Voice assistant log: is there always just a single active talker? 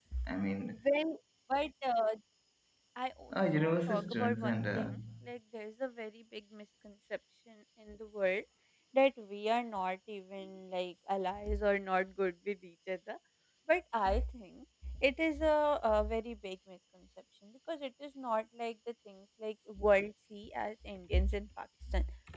No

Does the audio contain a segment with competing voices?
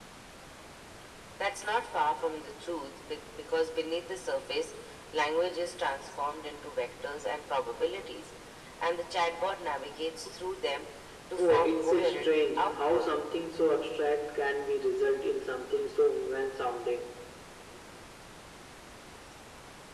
Yes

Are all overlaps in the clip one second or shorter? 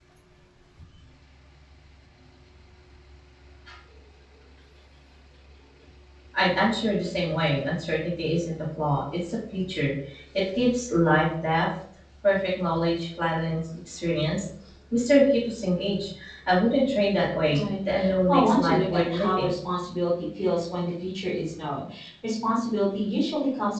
No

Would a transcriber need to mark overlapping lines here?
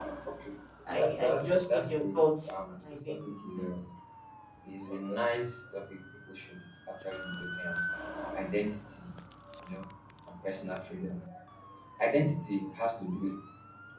Yes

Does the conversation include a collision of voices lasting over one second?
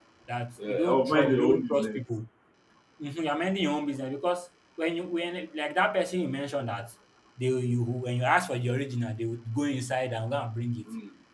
Yes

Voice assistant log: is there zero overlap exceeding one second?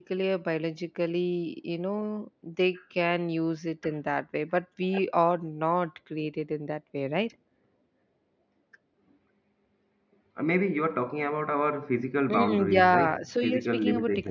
No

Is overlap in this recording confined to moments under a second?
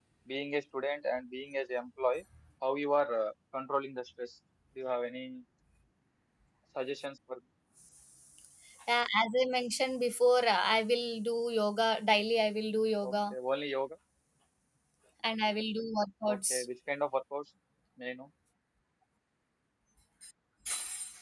Yes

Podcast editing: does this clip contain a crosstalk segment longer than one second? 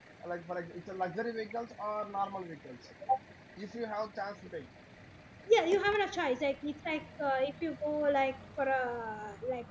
No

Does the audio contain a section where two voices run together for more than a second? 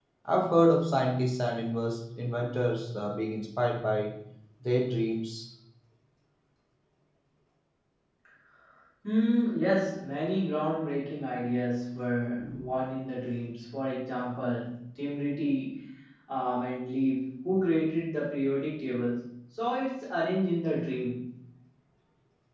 No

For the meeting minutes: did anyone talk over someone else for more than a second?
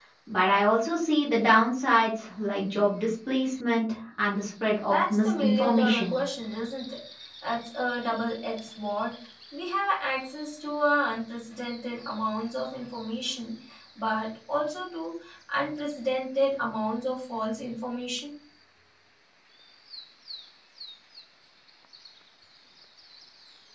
Yes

